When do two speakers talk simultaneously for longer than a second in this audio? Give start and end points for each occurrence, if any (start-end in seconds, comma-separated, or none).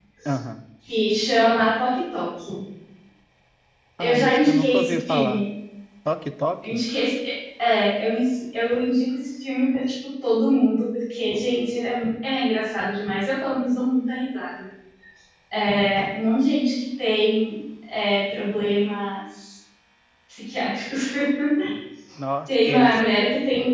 4.0-5.4